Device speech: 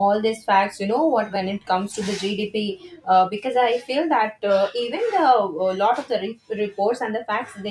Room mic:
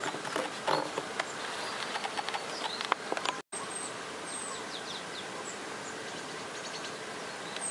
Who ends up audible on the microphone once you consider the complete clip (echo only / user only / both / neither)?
neither